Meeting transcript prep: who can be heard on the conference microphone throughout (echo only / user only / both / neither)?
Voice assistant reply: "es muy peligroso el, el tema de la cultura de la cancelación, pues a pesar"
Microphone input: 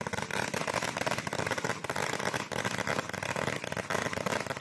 neither